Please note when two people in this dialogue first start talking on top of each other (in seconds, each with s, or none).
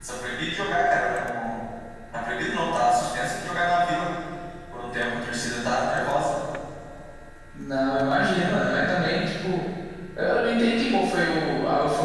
none